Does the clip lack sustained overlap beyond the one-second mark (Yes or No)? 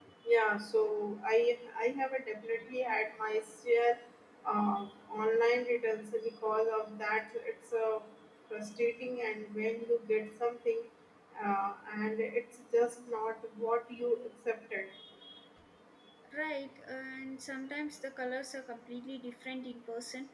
Yes